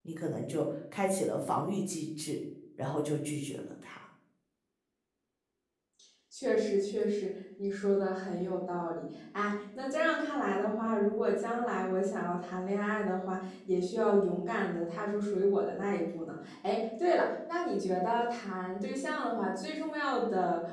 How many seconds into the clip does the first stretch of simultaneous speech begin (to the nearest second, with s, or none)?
none